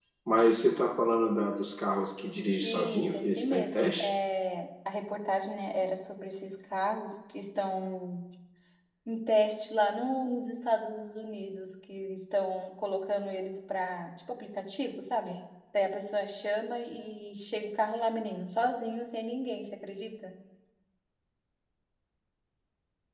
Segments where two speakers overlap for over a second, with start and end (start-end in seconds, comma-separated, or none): 2.6-4.1